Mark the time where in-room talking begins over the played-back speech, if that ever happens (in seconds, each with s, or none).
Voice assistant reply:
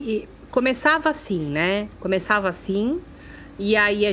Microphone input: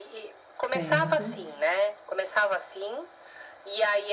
0.6 s